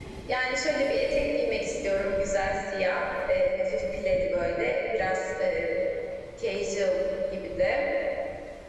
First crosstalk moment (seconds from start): none

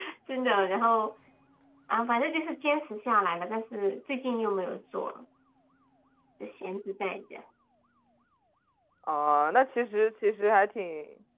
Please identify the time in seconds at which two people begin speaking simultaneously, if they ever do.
none

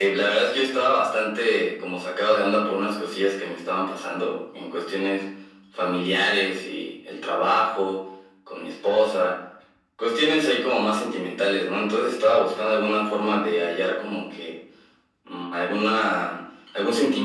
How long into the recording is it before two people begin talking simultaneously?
none

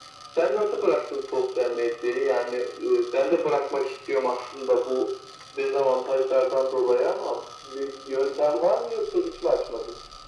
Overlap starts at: none

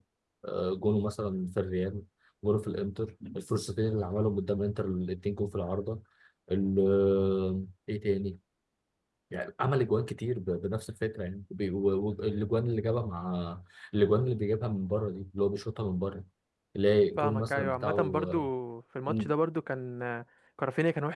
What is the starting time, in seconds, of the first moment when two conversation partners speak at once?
17.2 s

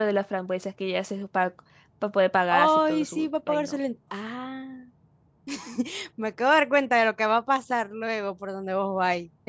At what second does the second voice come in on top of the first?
2.6 s

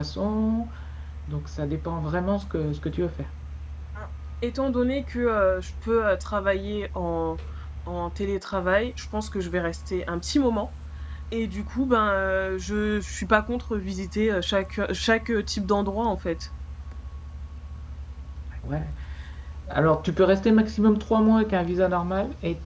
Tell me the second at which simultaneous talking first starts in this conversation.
none

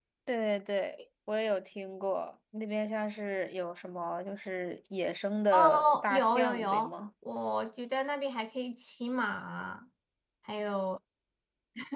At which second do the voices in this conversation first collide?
5.5 s

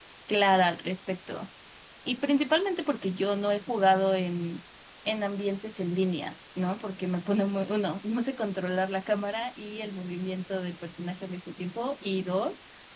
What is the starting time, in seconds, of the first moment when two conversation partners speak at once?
none

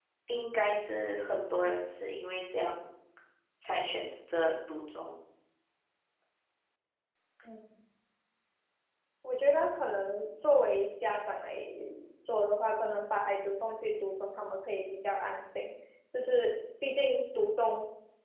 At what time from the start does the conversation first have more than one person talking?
none

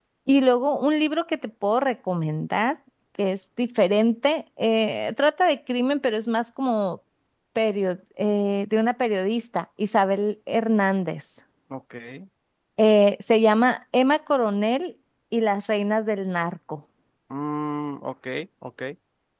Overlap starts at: none

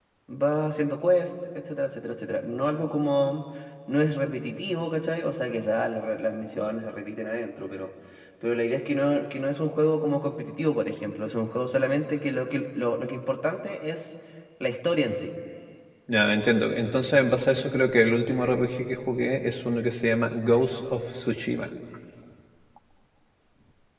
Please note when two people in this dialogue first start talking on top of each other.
none

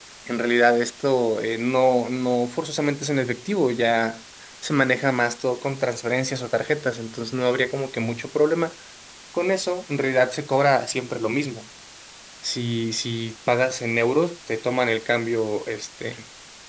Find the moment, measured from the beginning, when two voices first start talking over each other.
none

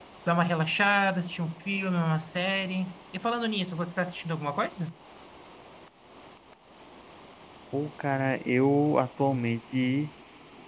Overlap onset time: none

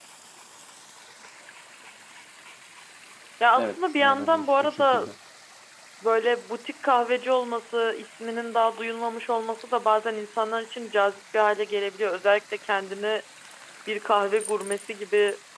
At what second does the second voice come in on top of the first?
3.6 s

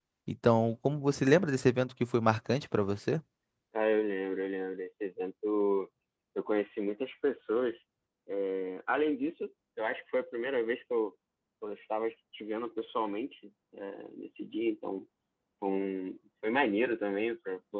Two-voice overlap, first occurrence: none

